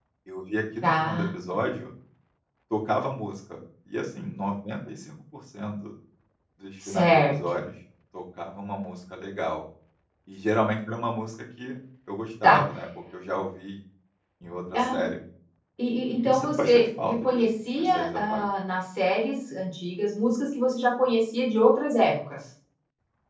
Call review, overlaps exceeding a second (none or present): present